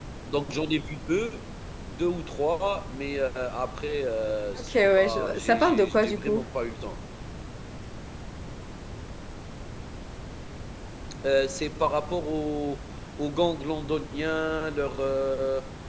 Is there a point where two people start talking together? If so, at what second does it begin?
4.5 s

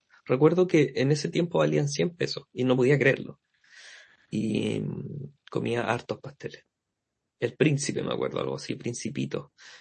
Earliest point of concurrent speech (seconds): none

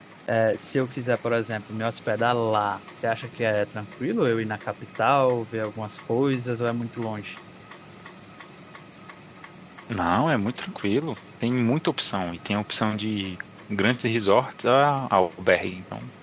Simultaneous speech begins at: none

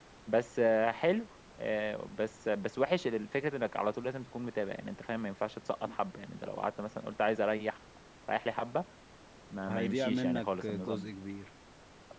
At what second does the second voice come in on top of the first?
9.7 s

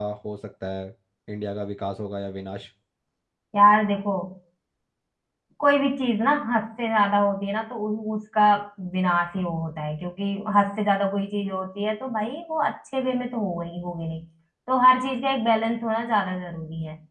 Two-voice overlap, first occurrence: none

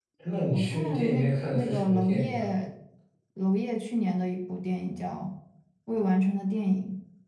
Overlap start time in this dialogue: 0.5 s

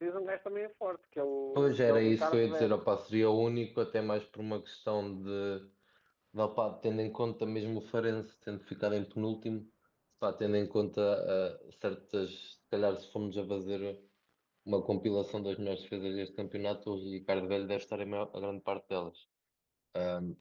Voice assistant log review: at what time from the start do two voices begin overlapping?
1.6 s

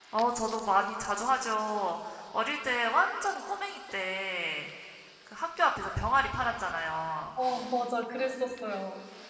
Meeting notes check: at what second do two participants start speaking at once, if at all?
none

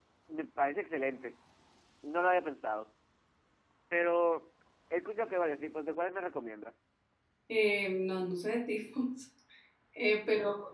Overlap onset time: none

